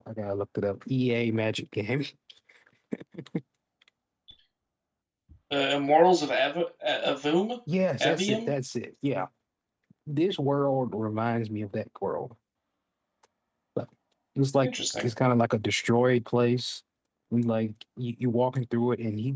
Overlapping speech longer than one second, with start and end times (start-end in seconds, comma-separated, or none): none